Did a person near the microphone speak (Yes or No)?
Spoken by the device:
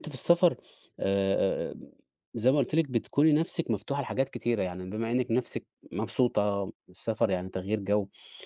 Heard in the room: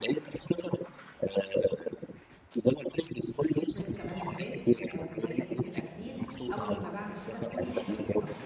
Yes